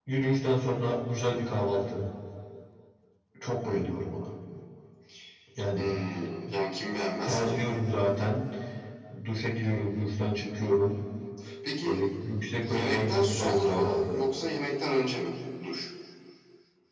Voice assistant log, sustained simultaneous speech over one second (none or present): present